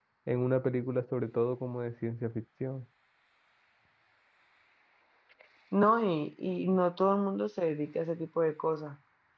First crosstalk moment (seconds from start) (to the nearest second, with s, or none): none